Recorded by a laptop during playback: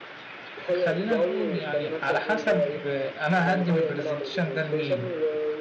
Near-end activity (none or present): present